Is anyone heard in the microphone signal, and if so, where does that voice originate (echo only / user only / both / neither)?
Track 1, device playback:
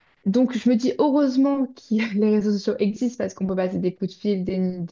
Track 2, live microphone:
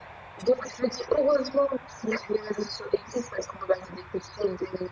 echo only